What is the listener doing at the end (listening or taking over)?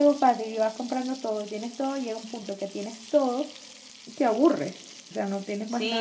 taking over